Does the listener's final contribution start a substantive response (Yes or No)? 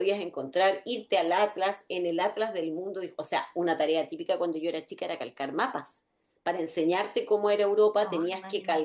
No